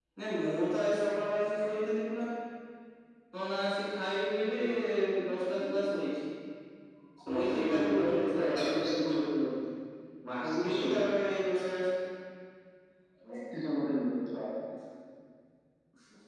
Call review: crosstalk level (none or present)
present